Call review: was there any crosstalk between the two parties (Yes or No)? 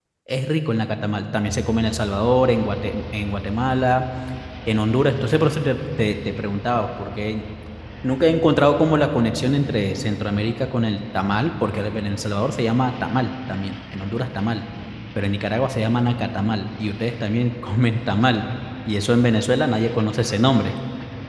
No